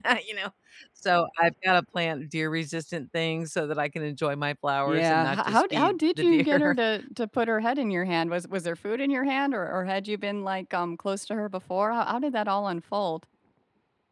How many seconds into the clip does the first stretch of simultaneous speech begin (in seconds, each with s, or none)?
4.9 s